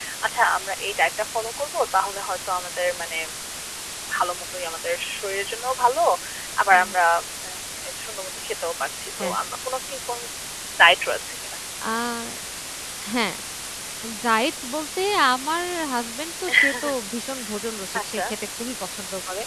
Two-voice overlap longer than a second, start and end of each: none

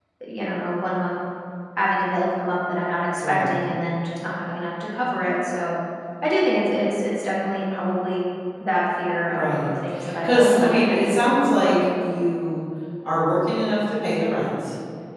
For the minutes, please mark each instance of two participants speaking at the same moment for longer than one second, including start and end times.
10.2-11.8

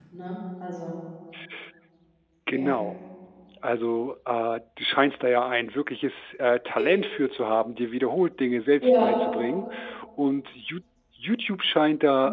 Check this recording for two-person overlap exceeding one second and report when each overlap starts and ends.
none

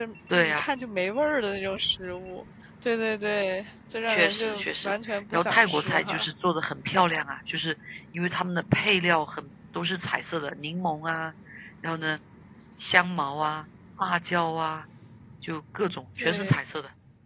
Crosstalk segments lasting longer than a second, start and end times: 4.1-6.3

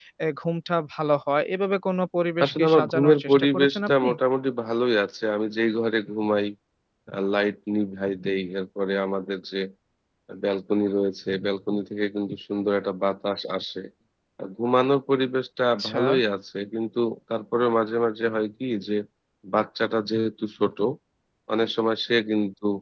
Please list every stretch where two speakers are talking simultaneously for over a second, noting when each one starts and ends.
2.4-4.1

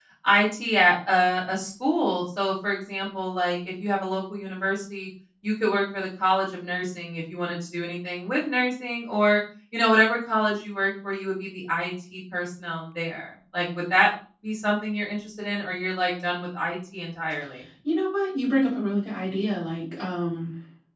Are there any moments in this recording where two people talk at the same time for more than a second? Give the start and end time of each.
none

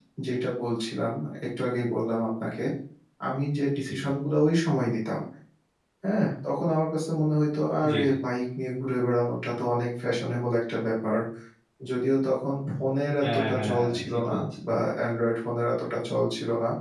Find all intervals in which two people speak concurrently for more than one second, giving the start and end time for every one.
13.2-14.4

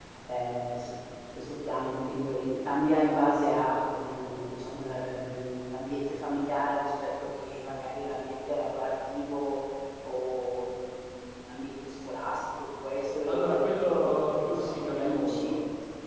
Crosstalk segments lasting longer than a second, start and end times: 13.3-15.5

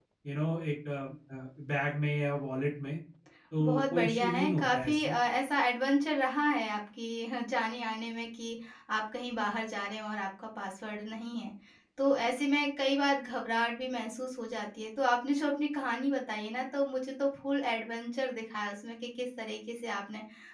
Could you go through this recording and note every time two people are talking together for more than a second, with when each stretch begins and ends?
3.6-5.1

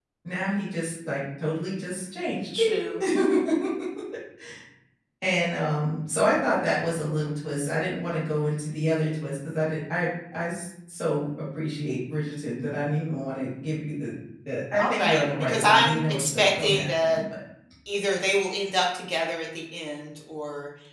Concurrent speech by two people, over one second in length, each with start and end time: 14.8-17.2

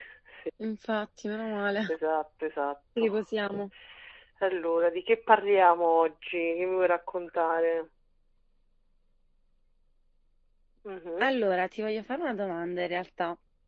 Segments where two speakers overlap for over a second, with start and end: none

